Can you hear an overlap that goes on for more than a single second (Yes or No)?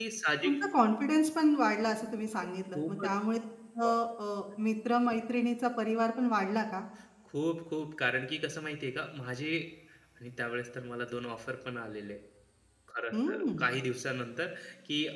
No